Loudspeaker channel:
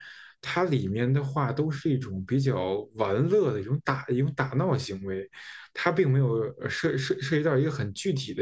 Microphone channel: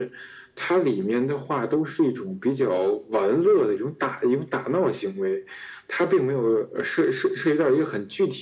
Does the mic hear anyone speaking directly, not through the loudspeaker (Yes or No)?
No